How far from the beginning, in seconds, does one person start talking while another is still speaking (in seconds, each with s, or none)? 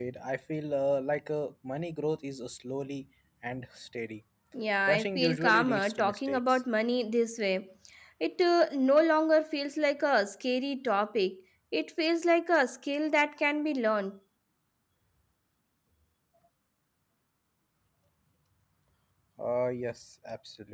4.9 s